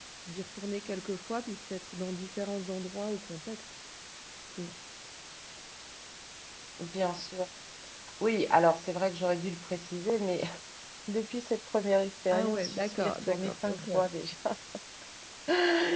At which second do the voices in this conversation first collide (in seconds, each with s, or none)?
12.3 s